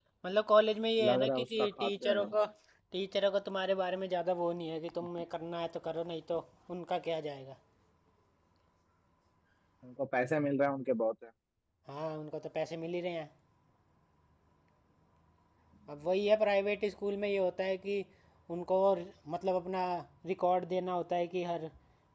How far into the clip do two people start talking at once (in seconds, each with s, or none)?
1.0 s